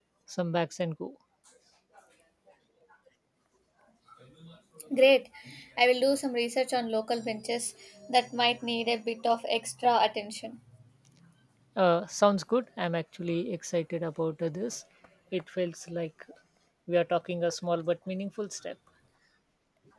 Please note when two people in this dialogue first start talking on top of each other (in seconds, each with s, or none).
none